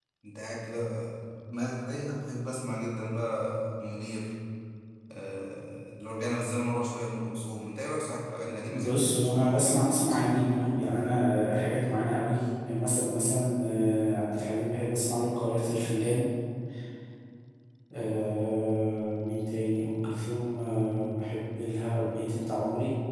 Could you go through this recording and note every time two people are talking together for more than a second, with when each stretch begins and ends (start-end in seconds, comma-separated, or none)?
8.6-10.5